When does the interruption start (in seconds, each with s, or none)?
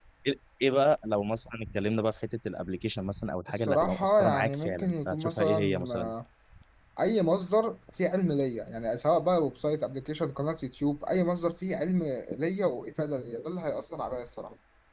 3.5 s